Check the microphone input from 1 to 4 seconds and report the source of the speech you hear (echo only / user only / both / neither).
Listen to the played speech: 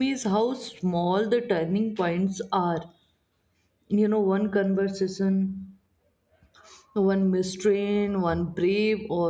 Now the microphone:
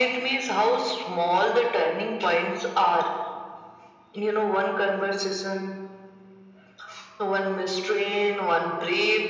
echo only